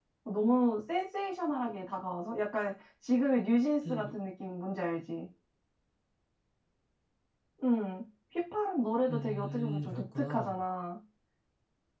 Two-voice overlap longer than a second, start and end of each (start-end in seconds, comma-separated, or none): 9.1-10.6